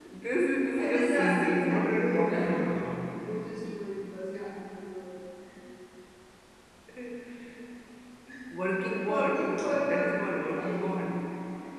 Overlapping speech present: Yes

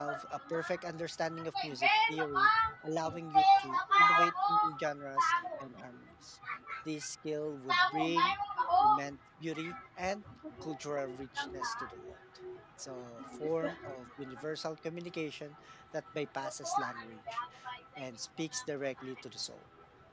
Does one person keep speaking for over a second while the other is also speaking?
Yes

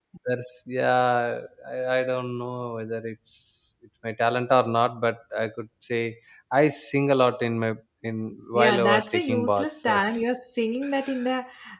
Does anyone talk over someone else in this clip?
Yes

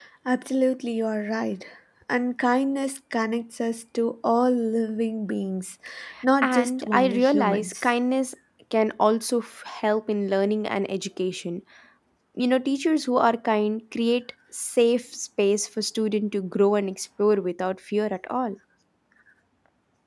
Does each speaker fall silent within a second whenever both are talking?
No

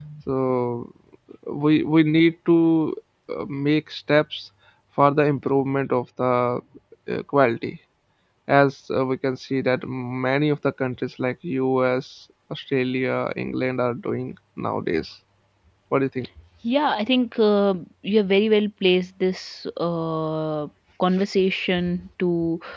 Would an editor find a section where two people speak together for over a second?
No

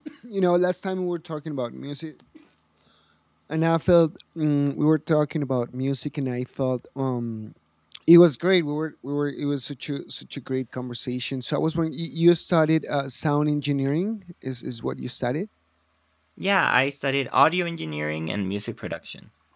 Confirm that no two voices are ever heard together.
Yes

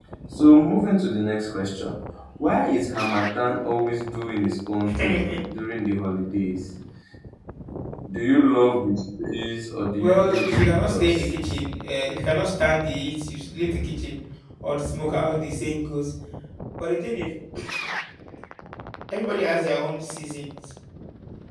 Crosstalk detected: Yes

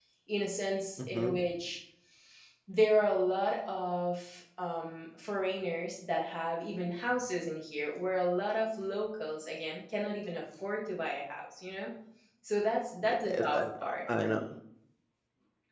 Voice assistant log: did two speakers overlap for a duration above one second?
Yes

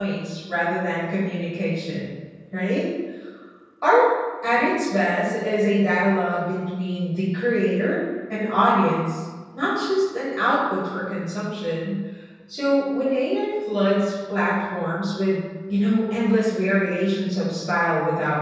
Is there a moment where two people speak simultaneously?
No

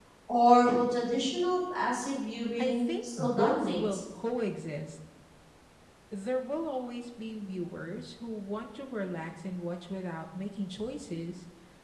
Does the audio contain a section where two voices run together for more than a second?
Yes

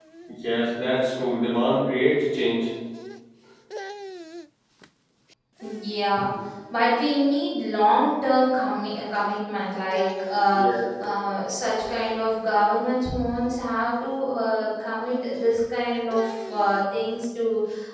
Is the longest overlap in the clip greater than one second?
No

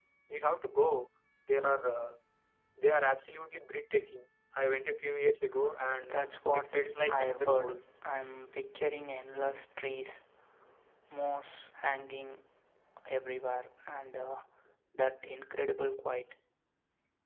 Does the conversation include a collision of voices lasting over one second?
Yes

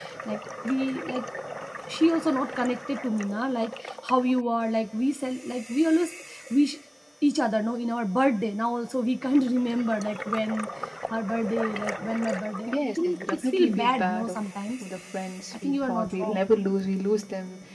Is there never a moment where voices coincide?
No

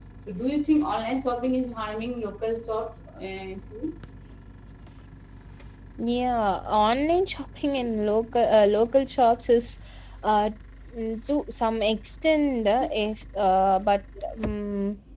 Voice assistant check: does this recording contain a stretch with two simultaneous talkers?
No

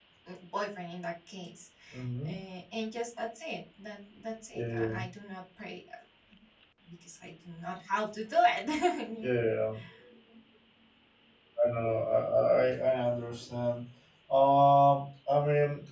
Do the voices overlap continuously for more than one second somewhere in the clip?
No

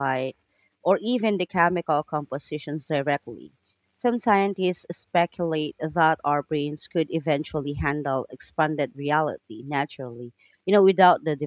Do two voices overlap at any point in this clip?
No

